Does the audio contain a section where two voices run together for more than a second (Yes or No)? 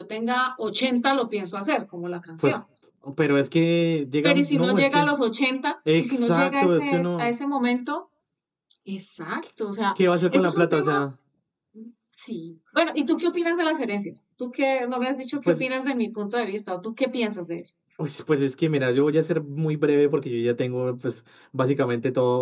Yes